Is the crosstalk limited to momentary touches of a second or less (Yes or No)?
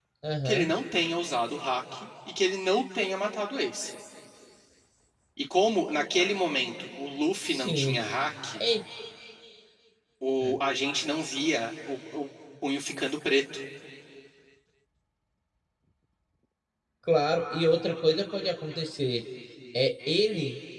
Yes